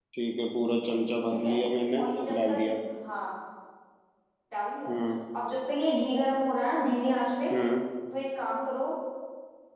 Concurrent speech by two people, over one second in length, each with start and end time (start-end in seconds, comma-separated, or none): none